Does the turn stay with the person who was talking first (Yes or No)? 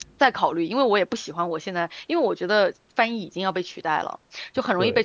Yes